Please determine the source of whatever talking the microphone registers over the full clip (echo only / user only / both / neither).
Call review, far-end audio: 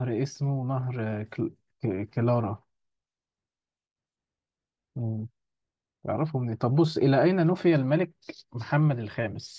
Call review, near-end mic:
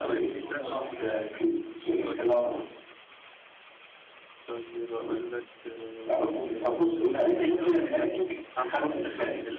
both